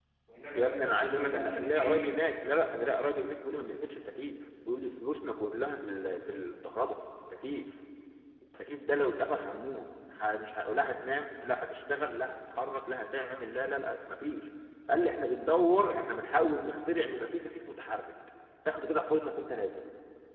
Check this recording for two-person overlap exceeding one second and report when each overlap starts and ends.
0.5-2.0

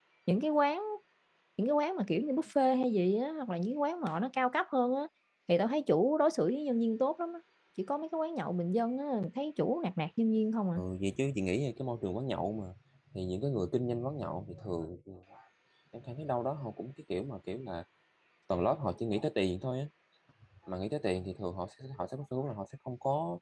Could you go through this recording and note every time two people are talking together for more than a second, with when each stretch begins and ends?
none

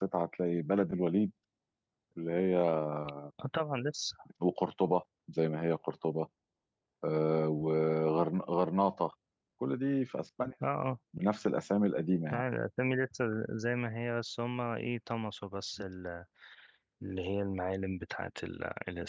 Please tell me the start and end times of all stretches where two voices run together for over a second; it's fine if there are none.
none

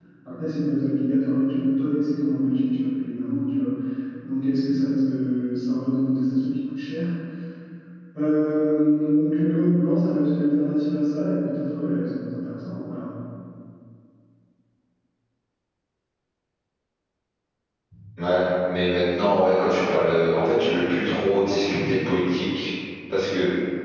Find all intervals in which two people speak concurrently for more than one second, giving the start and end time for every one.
none

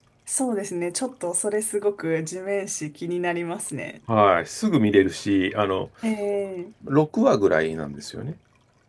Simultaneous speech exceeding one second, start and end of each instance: none

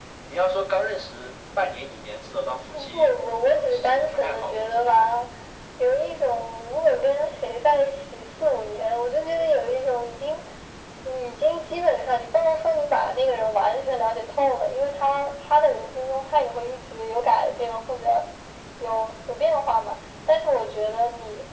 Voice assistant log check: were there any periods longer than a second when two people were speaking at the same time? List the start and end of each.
3.7-5.0

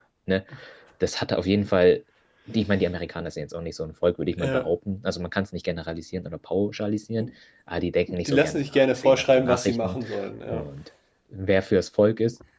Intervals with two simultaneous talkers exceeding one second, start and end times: 8.2-10.0

